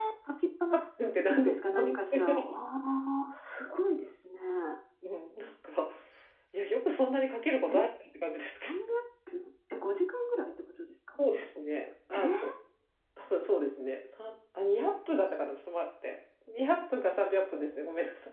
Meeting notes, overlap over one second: present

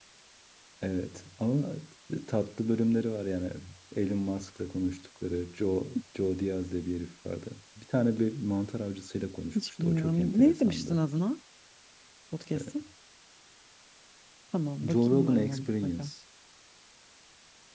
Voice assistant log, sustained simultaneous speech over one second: present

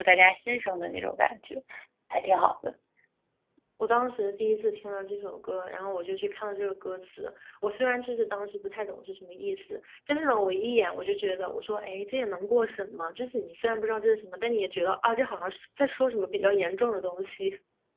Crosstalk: none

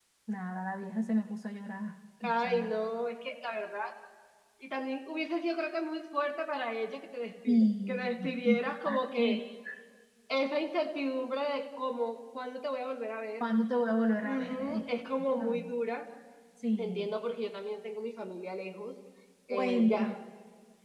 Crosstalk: present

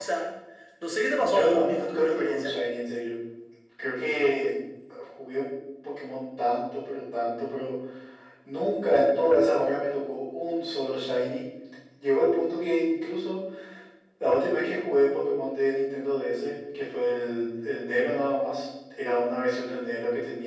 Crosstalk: present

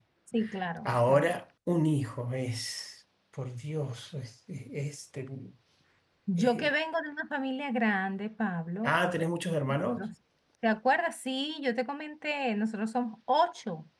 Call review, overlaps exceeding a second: none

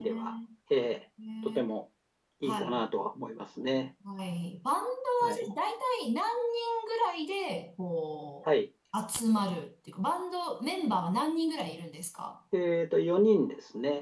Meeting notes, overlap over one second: none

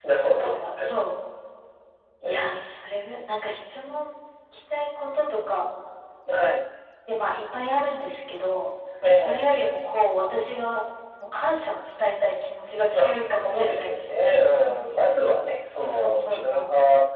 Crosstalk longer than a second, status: present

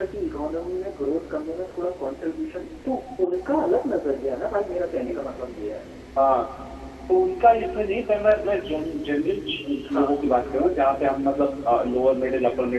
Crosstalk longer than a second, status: none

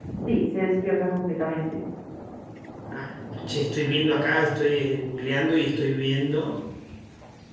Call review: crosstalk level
none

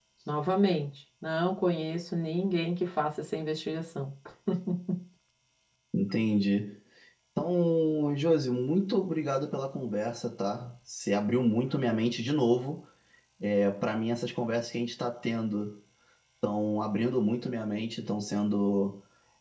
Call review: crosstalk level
none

